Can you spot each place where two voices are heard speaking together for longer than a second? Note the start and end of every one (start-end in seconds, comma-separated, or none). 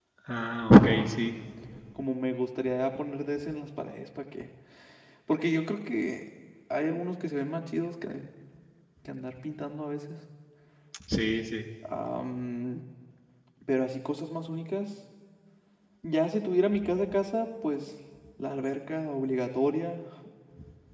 none